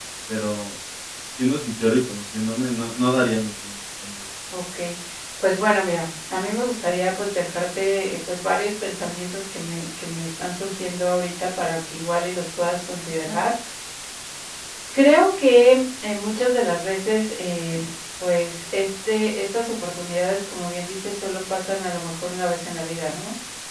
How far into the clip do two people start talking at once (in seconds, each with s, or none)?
none